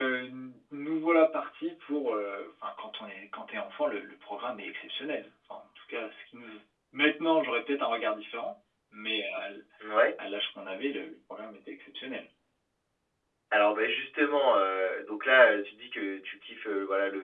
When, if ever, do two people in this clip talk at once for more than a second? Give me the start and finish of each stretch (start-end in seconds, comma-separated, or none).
none